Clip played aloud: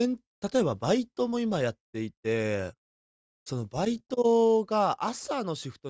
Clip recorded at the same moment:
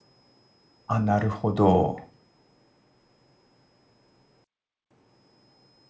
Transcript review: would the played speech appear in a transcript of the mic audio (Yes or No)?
No